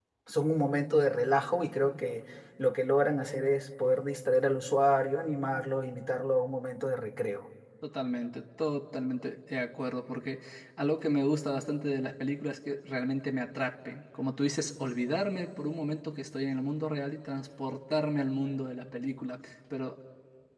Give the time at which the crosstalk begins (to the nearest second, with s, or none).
none